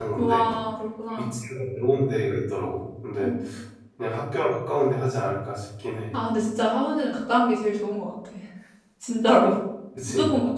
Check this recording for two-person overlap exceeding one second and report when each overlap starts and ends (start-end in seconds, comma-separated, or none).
none